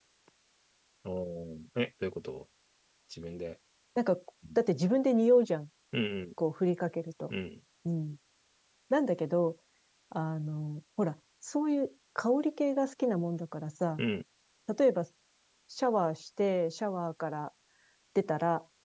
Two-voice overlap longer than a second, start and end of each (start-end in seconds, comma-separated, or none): none